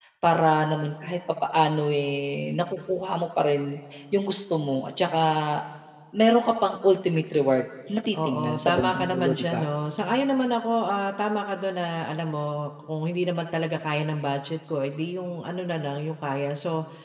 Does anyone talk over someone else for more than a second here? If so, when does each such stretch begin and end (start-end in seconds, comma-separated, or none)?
8.1-9.6